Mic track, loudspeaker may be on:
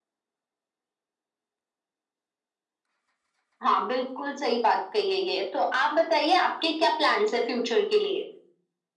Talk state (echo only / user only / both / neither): echo only